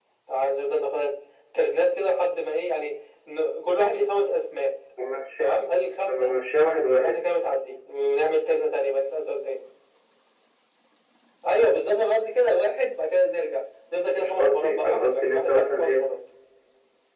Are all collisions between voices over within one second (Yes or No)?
No